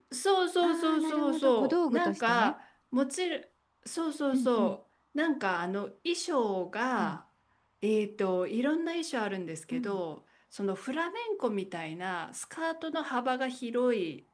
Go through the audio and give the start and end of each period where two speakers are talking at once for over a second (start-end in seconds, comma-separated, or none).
0.6-2.5